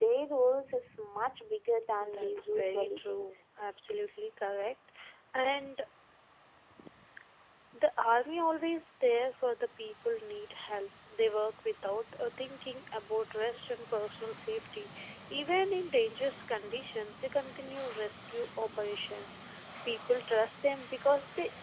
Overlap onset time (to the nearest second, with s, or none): 2 s